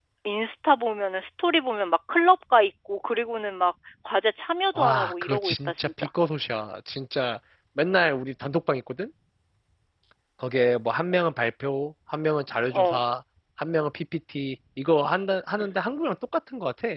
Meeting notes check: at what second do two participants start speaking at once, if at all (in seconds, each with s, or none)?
4.8 s